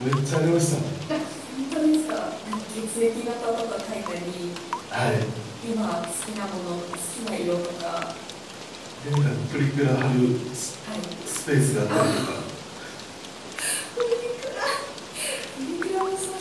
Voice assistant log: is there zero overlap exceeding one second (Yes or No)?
Yes